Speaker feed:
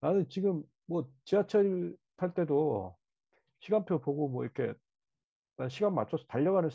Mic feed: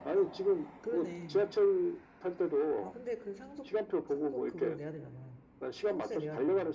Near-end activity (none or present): present